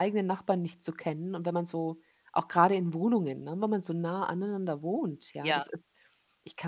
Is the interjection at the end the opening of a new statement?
No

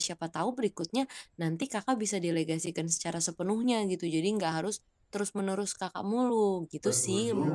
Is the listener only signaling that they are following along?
No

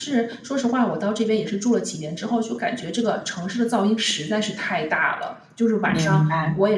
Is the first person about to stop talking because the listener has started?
No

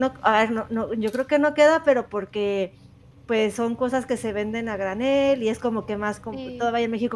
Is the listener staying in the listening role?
Yes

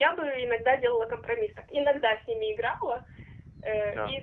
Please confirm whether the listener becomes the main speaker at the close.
No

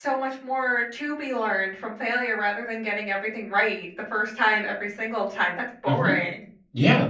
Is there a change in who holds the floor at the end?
Yes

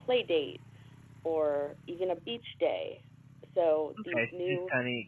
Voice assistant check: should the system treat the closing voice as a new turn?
Yes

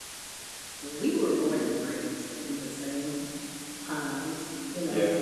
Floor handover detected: No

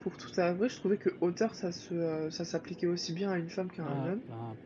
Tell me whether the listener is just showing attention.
No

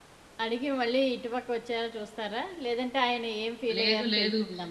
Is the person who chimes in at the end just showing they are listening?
No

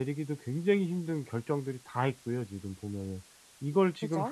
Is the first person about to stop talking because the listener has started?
No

